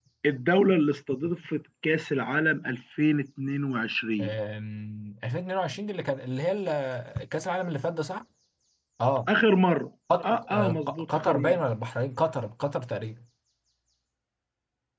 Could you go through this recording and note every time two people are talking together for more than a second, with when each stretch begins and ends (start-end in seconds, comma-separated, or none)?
10.2-11.6